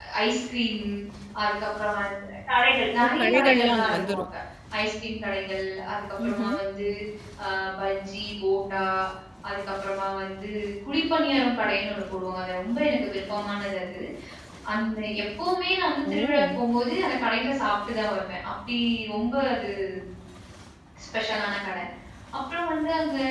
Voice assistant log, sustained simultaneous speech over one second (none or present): present